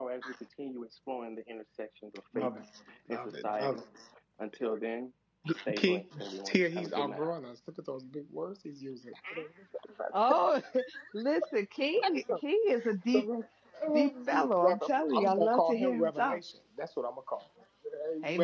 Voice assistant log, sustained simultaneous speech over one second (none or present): present